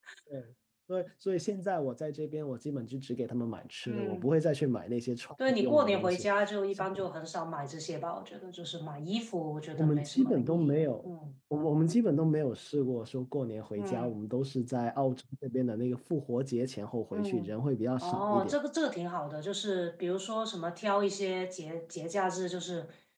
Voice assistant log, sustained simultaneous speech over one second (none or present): present